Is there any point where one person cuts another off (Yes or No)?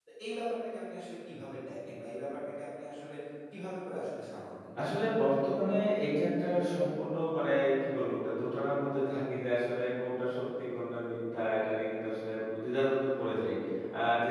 No